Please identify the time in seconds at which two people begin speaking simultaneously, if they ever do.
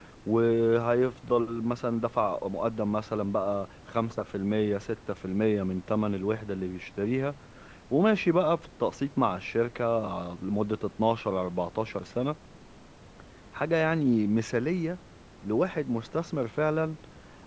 none

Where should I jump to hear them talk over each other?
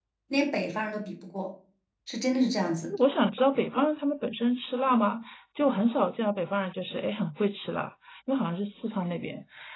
none

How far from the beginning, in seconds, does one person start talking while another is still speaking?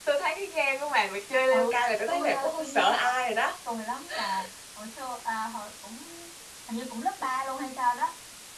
1.5 s

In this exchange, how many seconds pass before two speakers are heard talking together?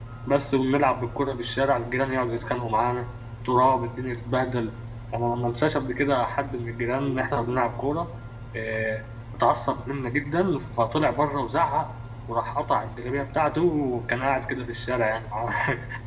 none

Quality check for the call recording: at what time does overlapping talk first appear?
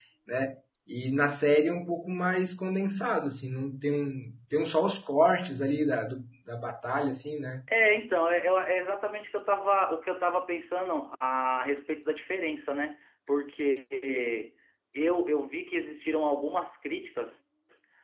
none

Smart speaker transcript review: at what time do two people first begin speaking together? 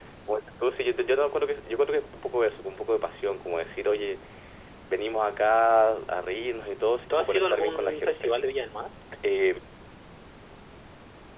7.1 s

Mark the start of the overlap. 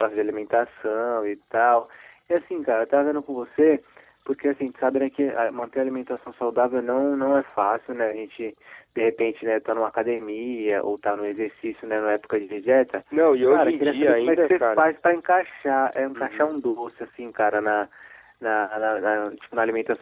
13.4 s

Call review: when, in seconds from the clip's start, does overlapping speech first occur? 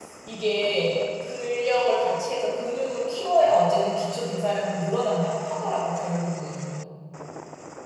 none

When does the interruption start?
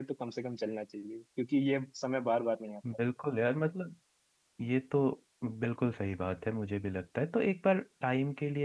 none

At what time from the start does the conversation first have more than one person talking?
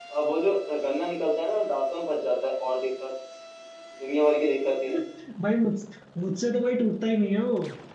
none

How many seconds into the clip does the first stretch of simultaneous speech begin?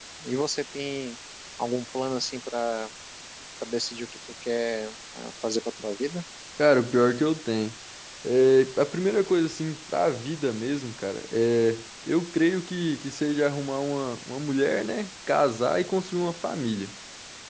none

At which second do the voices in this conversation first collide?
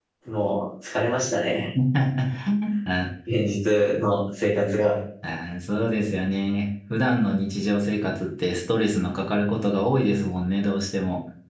none

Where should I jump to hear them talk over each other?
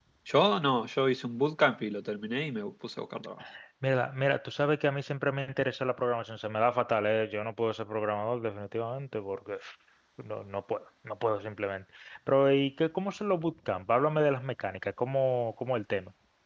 none

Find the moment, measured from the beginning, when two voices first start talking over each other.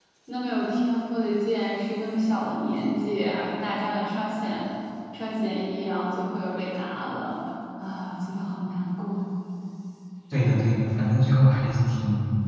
none

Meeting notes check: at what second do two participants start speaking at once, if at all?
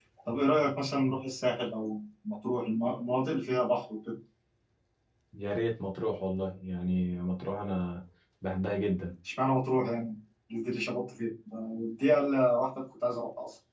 none

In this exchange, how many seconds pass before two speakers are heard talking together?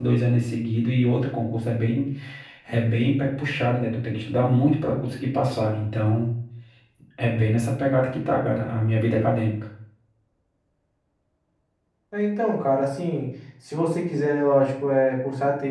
none

